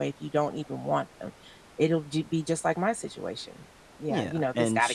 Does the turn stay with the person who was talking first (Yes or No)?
No